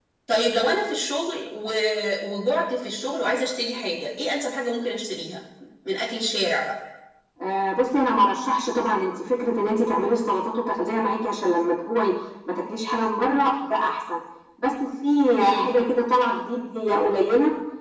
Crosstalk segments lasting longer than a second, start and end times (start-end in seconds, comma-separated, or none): none